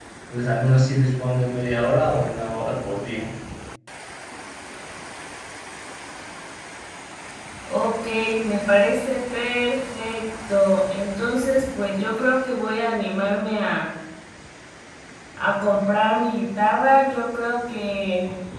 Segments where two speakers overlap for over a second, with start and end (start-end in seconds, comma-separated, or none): none